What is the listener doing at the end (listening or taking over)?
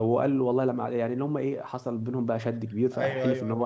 taking over